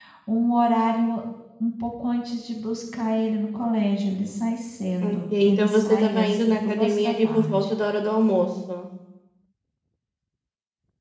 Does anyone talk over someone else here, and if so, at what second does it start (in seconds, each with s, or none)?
5.0 s